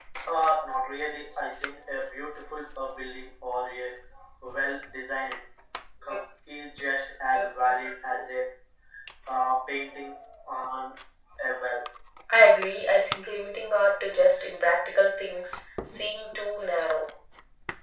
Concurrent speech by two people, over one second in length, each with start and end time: none

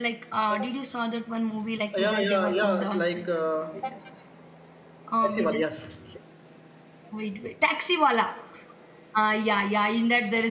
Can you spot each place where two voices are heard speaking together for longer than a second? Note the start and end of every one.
1.9-3.2

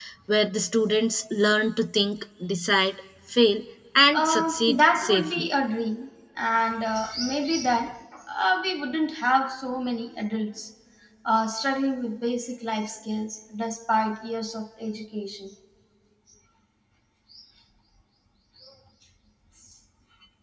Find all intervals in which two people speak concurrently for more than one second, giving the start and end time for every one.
4.1-5.5

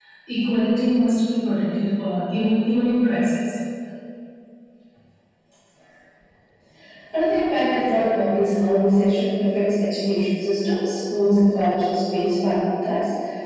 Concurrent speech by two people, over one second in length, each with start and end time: none

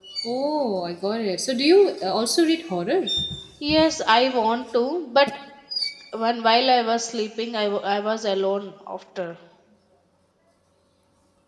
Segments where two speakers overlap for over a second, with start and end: none

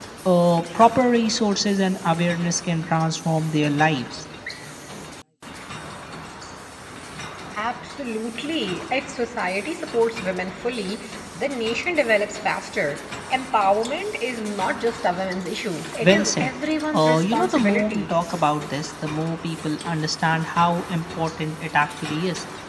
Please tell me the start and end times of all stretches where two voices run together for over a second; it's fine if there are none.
16.9-18.1

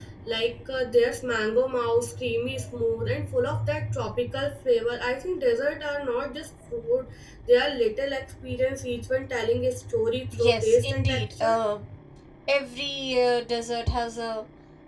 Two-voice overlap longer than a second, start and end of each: 10.3-11.6

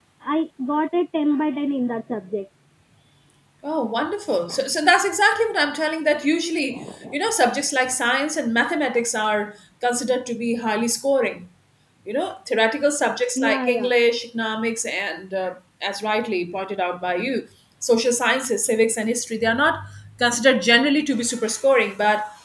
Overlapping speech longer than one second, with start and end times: none

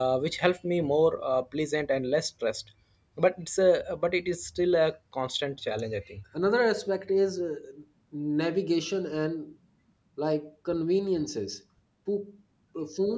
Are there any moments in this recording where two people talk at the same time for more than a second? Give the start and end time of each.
none

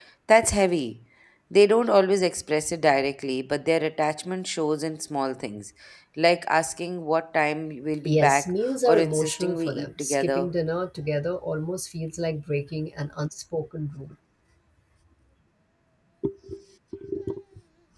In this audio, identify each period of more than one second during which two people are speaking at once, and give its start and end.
8.0-10.5

